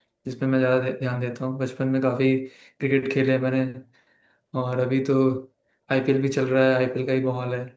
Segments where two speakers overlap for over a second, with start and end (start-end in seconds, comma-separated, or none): none